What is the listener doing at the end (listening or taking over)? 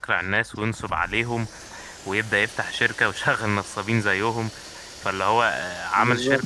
listening